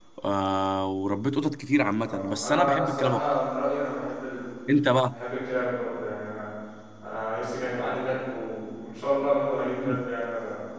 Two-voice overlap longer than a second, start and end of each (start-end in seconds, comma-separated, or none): 2.0-3.3